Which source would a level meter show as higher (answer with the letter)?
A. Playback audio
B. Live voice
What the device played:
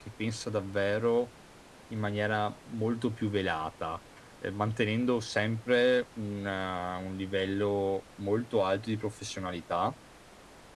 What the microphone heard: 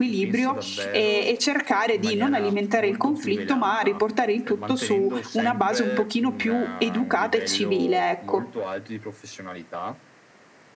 B